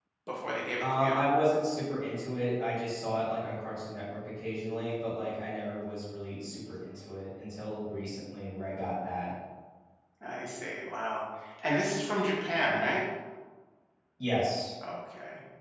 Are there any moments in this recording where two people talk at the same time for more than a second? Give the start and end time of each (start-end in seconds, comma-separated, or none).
none